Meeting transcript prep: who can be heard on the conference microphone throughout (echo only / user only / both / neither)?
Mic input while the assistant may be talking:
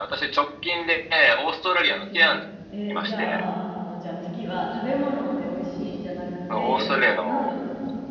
both